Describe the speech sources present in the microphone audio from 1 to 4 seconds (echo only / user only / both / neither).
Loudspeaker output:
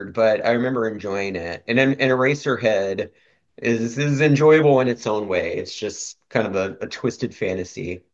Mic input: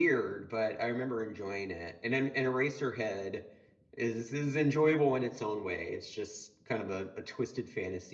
echo only